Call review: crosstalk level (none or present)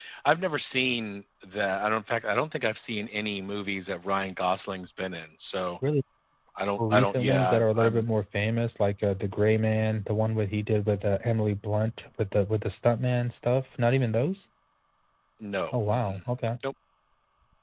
present